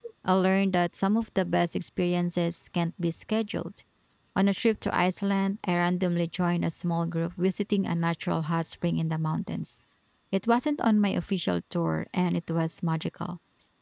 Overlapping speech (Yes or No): No